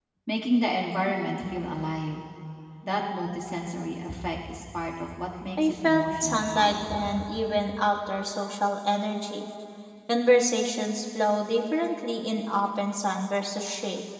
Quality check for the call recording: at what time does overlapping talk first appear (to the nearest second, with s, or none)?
6 s